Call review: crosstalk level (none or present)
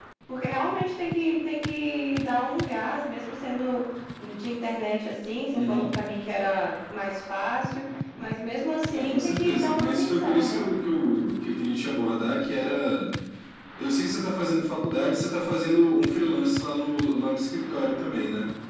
present